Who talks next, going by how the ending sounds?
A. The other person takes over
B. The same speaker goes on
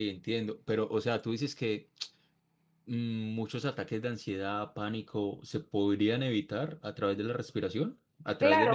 A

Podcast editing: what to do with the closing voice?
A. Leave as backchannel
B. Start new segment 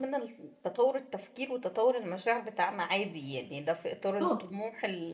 A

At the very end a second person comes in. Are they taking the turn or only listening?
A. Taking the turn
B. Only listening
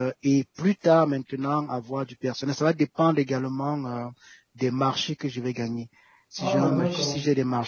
B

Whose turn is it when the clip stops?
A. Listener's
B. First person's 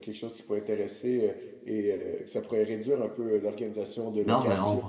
A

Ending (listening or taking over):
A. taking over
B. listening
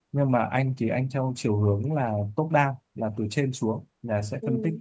B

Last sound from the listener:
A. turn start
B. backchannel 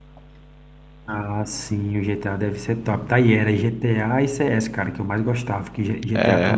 B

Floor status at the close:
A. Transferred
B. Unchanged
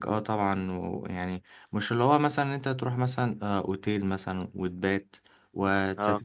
B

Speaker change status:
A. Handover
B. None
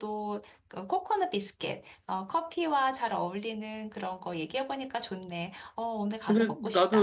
A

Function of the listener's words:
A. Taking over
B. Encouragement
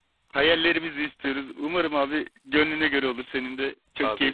A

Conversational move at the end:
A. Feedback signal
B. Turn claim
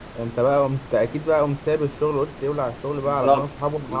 B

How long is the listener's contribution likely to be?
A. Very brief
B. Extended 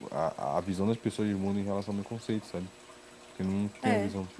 B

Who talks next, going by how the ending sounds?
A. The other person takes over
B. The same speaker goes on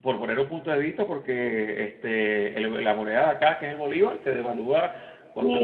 A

